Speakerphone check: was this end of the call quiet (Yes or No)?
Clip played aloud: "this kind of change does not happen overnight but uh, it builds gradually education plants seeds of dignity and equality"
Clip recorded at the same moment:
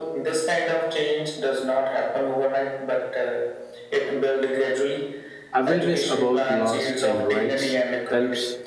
No